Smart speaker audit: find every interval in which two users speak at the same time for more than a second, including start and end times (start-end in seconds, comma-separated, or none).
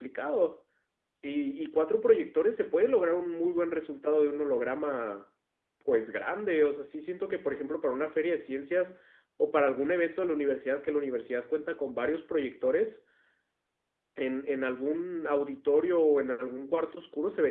none